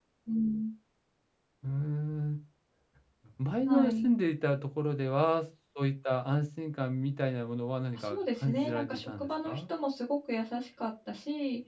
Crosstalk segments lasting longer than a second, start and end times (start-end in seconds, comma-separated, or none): 7.9-9.6